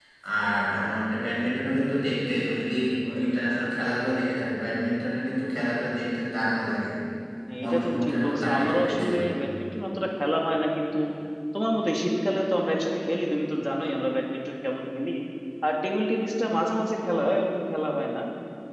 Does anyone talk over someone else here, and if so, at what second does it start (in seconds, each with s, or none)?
7.6 s